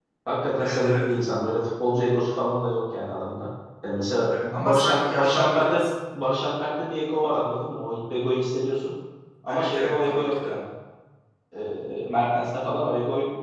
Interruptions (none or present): present